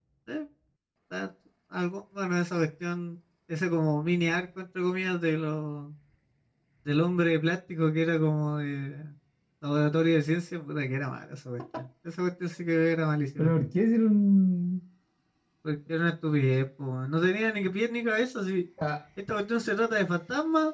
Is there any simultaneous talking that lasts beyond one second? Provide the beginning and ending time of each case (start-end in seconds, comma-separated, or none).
none